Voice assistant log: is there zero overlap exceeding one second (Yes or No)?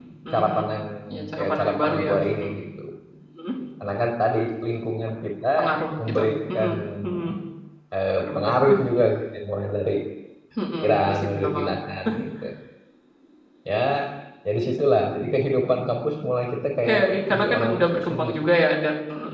No